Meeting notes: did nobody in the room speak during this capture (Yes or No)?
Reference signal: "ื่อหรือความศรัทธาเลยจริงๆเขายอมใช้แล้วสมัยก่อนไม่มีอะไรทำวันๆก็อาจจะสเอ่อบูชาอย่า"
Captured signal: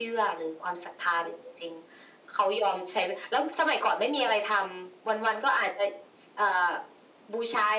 Yes